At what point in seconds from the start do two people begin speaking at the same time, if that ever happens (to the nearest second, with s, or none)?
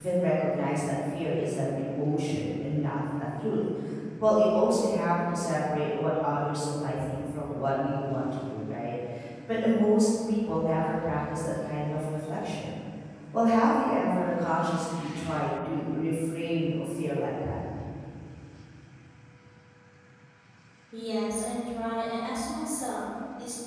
none